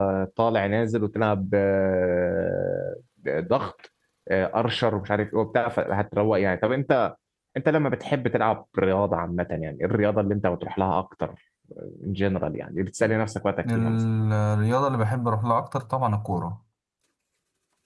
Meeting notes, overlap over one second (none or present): none